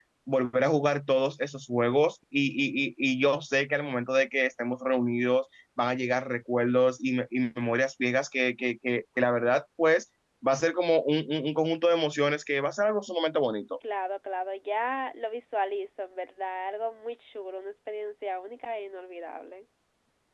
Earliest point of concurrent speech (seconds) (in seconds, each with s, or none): none